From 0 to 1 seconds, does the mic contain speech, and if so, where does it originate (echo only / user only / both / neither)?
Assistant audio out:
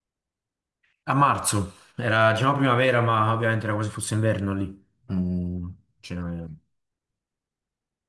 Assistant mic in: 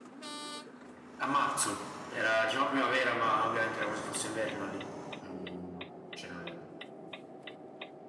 neither